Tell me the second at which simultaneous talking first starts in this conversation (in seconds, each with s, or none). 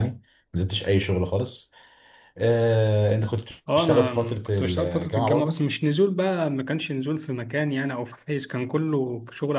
3.7 s